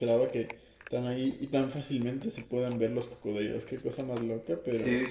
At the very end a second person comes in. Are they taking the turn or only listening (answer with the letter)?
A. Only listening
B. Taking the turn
B